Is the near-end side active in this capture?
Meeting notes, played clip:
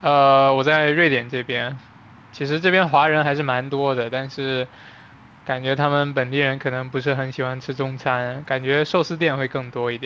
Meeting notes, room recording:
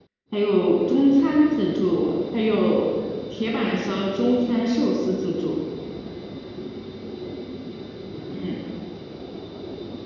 Yes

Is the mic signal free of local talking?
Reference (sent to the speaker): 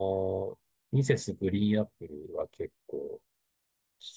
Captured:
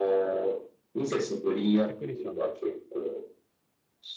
No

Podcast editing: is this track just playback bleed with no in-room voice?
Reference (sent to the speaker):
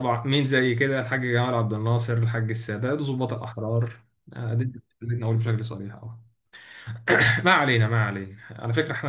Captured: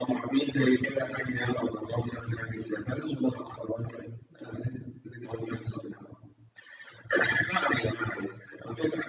Yes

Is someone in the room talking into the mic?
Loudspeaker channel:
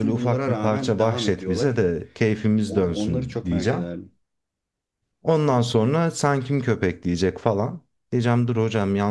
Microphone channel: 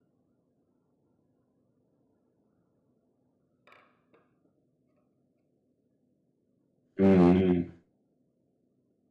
Yes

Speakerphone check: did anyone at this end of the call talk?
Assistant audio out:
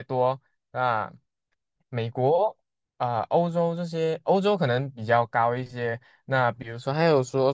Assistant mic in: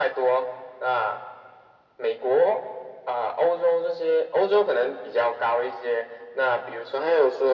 No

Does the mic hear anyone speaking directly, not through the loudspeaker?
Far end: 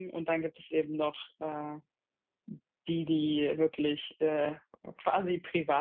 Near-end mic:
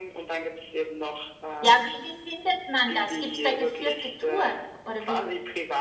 Yes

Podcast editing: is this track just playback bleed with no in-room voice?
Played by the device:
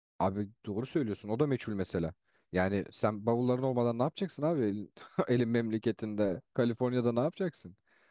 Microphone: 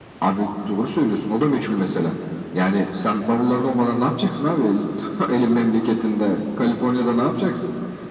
Yes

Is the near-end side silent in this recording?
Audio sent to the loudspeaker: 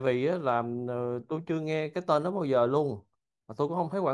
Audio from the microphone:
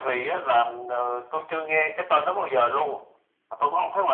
Yes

